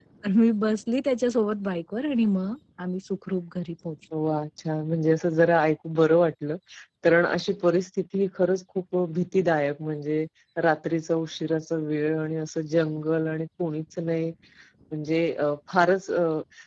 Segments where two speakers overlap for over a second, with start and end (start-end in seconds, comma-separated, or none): none